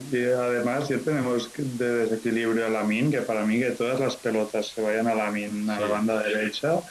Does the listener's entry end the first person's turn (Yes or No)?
No